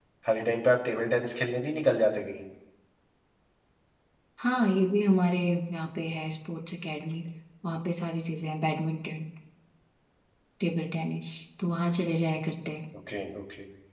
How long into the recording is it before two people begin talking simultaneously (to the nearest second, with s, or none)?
none